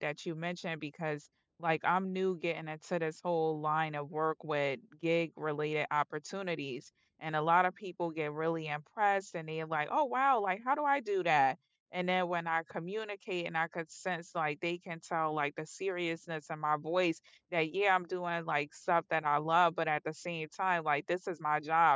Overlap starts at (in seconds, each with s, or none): none